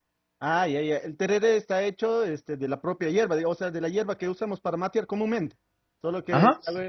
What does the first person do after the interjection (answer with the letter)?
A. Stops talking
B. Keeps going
A